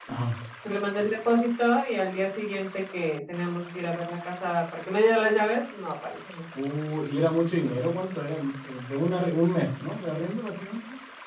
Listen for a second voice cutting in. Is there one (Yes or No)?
No